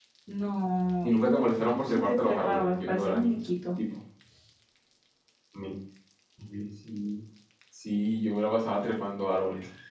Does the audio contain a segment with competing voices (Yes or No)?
Yes